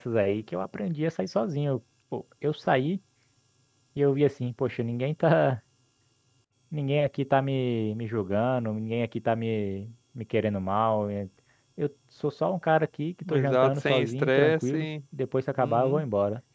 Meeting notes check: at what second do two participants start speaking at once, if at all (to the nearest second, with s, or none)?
13 s